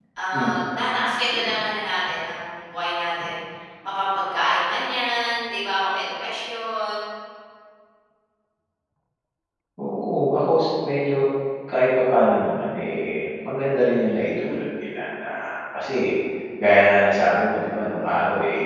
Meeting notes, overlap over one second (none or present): none